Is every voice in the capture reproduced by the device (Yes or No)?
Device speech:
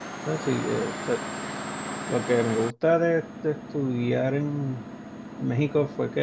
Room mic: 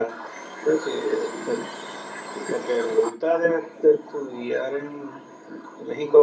Yes